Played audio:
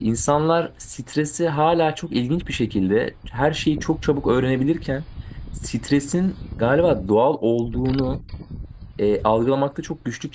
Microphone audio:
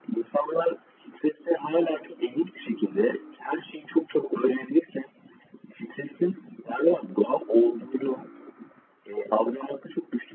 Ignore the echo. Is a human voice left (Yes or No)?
No